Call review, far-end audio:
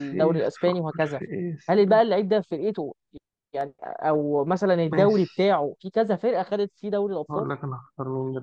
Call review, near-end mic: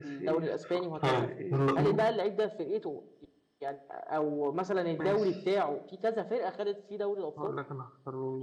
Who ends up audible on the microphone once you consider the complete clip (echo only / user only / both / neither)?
both